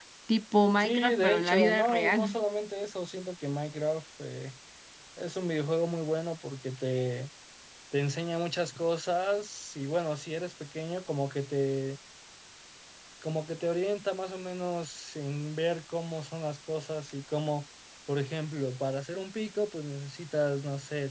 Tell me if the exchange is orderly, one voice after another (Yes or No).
No